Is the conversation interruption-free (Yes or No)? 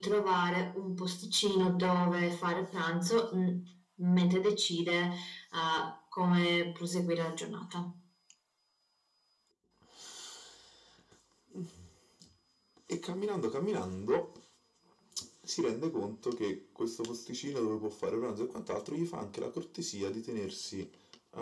Yes